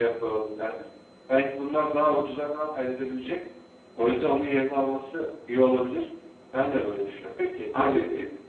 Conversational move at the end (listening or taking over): taking over